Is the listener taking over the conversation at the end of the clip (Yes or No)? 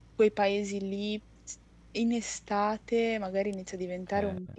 No